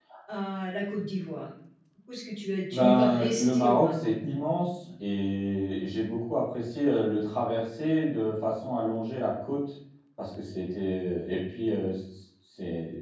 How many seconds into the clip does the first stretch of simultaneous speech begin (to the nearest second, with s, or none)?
3 s